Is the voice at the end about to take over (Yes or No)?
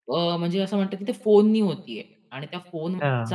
No